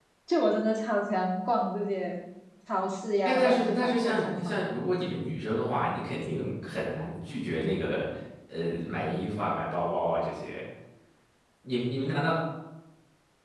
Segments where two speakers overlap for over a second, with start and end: 3.2-4.5

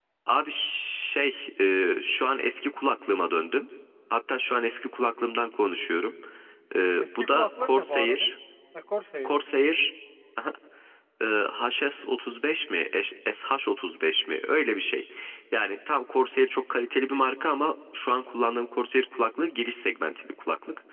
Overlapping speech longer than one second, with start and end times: 7.0-8.3

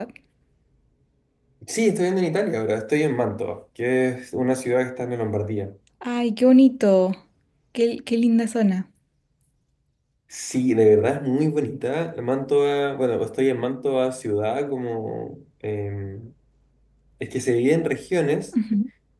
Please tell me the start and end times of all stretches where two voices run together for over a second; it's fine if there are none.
none

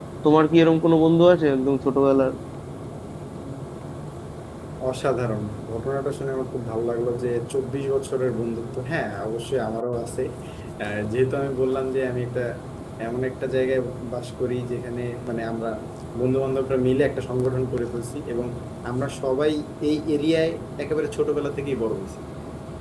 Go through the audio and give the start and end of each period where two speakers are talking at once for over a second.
none

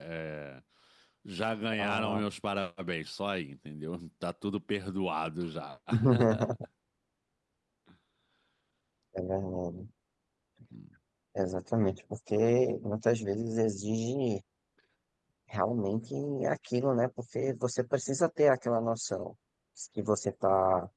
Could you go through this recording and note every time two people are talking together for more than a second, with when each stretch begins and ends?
none

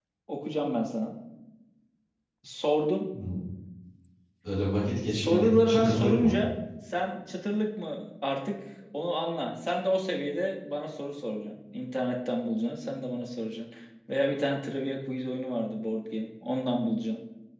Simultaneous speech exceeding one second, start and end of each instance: 5.1-6.3

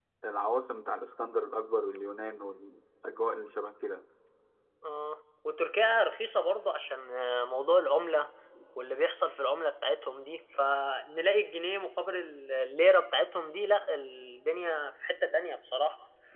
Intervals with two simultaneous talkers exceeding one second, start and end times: none

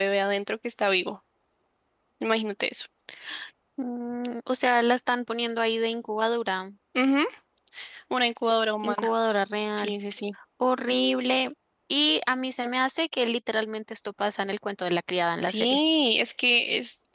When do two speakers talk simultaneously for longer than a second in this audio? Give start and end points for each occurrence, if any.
none

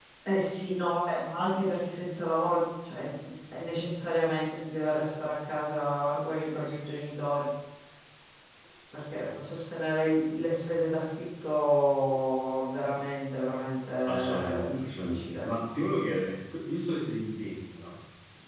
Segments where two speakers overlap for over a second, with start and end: 14.0-15.4

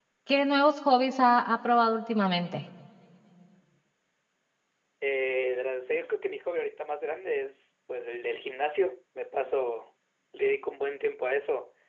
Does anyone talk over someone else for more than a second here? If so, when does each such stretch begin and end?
none

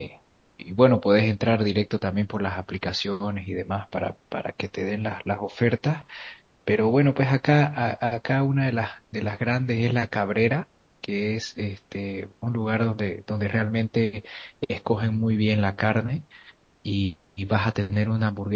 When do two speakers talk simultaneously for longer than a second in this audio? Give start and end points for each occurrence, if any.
none

